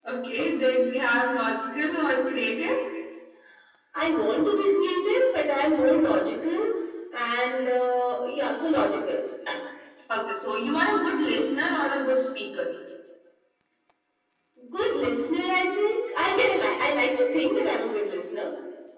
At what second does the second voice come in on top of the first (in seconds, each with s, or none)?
none